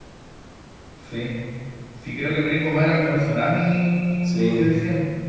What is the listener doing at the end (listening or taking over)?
listening